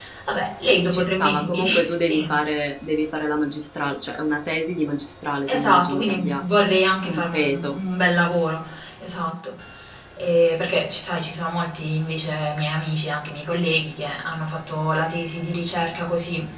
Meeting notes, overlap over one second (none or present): present